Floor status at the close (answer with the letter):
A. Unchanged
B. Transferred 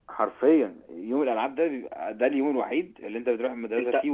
B